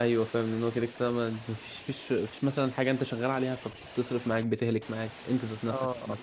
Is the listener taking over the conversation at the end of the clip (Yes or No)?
Yes